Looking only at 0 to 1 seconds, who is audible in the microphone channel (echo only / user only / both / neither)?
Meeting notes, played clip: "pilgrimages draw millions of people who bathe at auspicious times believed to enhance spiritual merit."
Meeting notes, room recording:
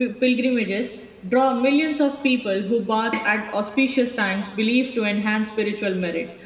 echo only